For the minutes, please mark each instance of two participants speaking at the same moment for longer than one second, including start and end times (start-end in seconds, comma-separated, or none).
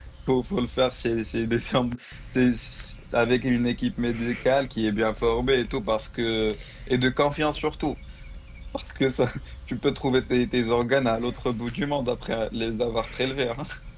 none